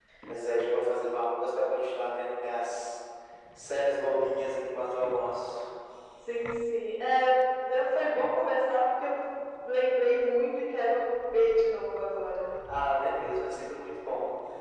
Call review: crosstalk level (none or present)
none